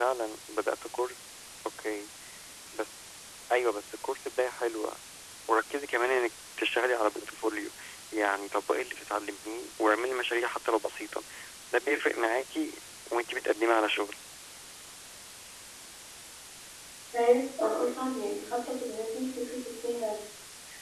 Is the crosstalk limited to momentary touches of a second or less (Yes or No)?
Yes